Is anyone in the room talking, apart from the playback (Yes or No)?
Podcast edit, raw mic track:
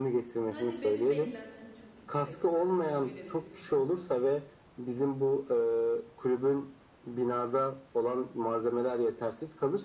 Yes